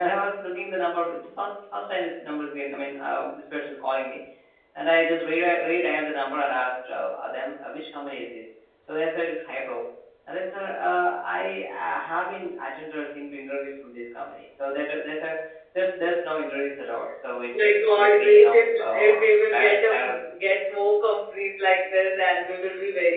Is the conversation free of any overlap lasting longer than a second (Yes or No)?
No